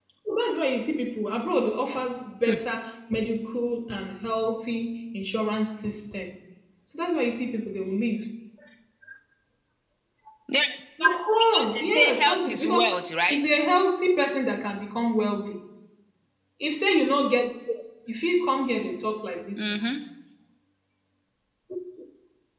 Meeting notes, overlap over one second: present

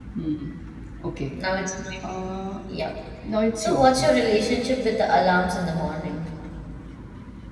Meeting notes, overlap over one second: none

